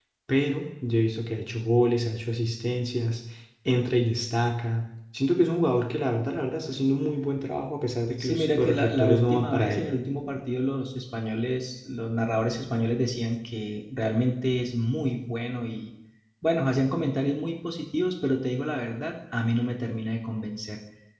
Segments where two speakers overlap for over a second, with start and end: 8.2-9.9

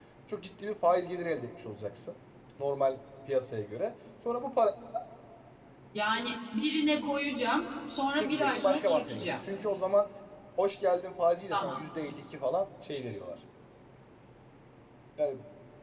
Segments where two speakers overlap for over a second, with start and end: 8.2-9.4

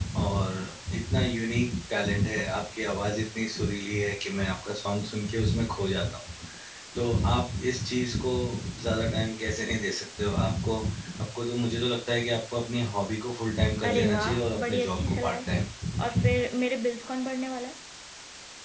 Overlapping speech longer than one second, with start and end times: 13.9-15.5

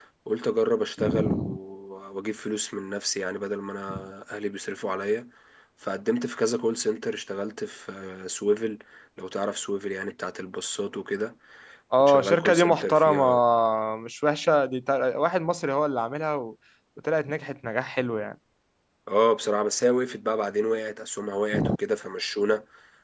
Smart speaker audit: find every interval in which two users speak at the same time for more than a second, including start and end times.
12.0-13.2

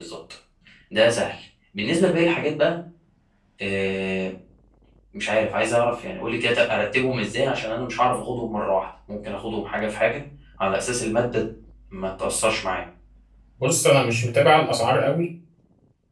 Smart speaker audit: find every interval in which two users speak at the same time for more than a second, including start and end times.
none

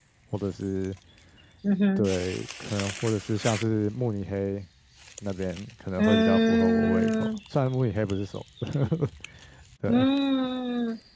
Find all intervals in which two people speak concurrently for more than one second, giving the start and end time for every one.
6.0-7.3

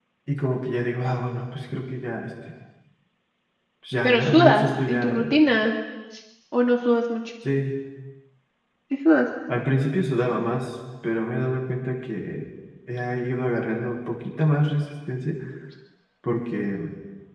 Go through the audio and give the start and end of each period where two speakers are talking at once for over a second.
4.0-5.3

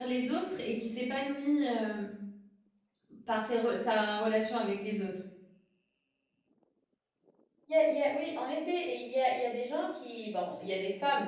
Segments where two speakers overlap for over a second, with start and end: none

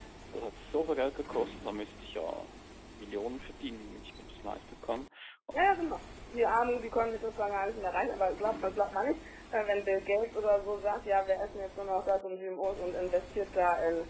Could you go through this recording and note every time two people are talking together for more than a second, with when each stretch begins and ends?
none

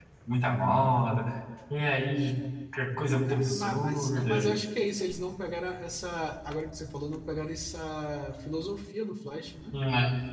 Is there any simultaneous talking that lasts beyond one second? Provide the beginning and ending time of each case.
3.2-4.5

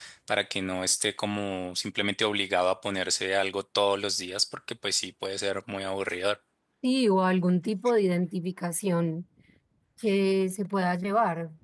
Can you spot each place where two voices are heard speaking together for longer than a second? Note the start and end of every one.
none

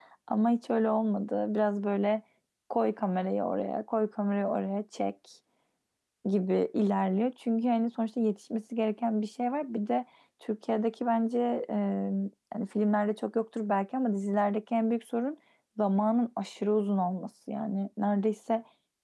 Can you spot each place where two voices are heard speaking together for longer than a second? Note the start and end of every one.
none

